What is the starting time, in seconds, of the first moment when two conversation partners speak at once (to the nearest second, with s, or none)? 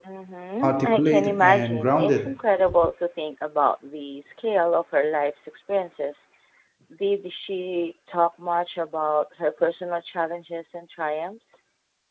1 s